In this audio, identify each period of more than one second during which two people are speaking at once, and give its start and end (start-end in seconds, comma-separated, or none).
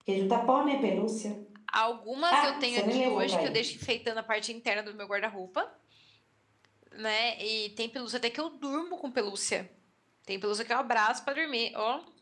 2.3-3.5